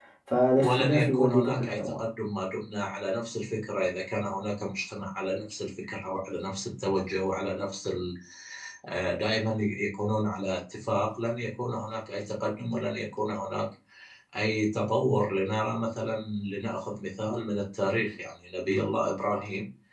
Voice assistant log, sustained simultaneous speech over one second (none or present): present